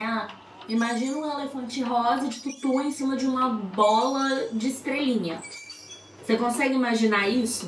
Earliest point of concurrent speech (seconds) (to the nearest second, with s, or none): none